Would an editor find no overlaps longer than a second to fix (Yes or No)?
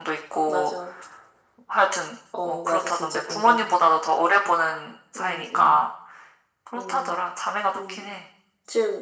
No